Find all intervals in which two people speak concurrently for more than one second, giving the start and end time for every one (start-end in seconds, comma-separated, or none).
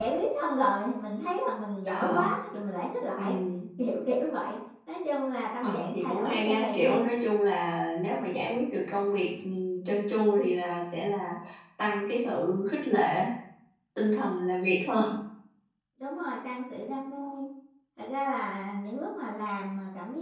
5.6-7.1